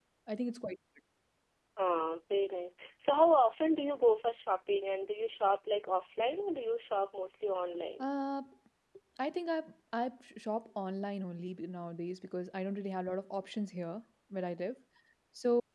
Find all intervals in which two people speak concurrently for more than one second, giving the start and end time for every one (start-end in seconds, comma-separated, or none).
none